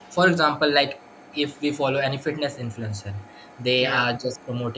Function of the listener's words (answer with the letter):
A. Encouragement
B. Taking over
A